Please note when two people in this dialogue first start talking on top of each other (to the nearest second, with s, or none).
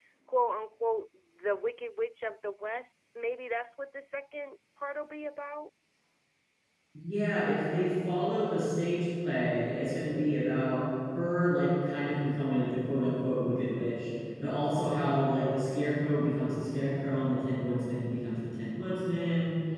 none